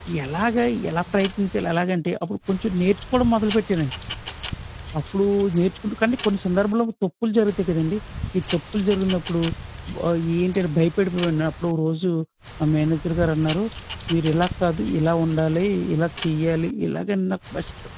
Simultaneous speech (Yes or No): No